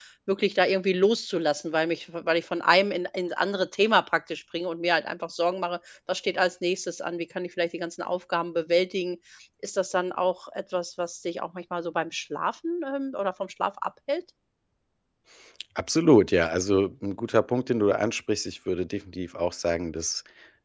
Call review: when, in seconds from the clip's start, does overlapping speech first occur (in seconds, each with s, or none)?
none